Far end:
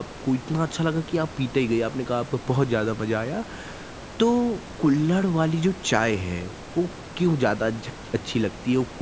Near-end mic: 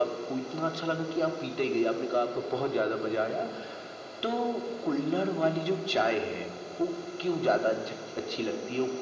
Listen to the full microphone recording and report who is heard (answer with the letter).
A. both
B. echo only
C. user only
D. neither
B